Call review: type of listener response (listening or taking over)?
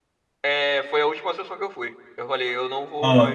taking over